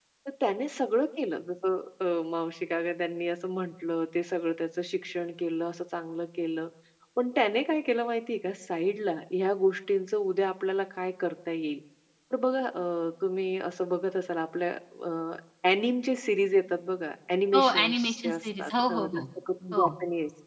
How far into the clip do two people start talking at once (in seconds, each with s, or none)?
17.5 s